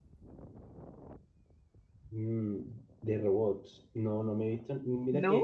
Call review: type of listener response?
listening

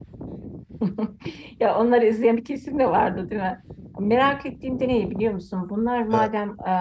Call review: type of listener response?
listening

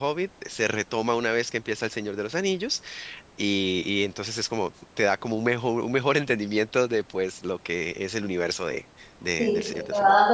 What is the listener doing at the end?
taking over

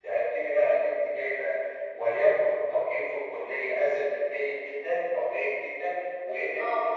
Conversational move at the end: listening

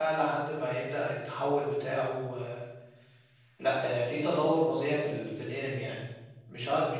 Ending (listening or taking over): listening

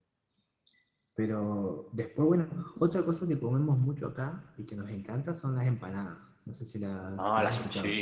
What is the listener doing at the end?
taking over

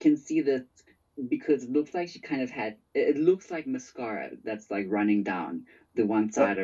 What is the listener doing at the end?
taking over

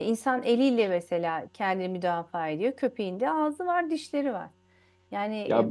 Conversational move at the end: taking over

